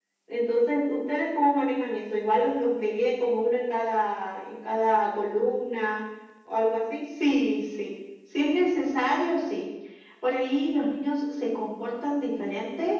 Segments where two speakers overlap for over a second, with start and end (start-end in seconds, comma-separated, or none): none